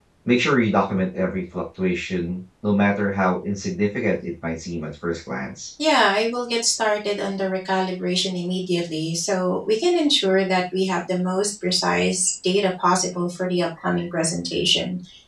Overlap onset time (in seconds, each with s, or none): none